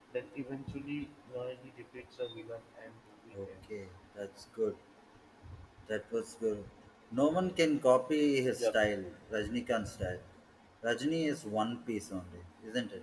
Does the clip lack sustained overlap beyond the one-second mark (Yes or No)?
Yes